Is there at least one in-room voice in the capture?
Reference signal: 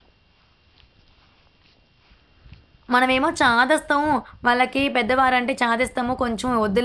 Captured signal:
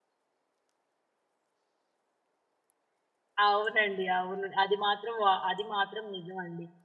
Yes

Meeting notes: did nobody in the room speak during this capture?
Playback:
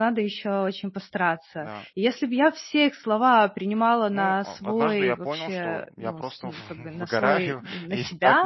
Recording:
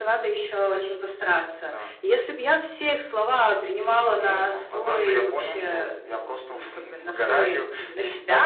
Yes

